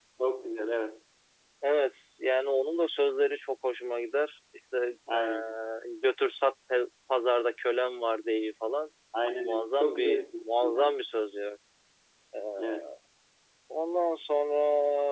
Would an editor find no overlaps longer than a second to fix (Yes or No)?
No